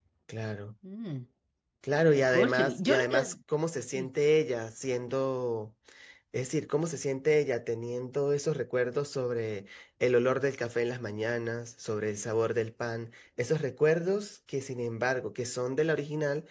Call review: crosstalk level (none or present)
present